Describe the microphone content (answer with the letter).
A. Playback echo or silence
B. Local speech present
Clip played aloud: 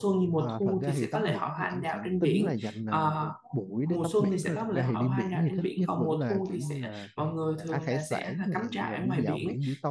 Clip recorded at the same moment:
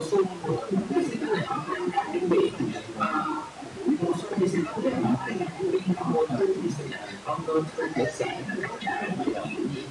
A